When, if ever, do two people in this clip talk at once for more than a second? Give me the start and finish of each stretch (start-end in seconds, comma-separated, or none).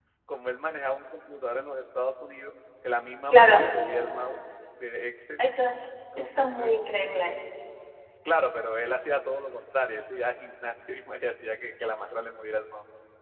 none